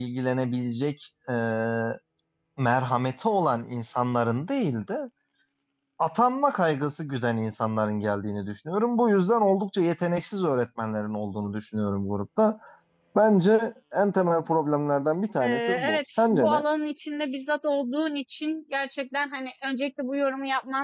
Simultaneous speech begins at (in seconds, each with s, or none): 15.4 s